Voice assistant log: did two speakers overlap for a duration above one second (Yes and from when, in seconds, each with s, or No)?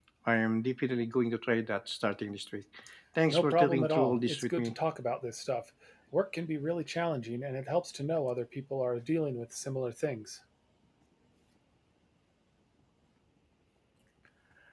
Yes, from 3.3 s